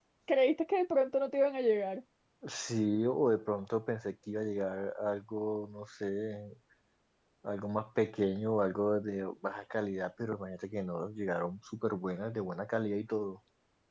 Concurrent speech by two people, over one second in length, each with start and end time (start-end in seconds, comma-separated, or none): none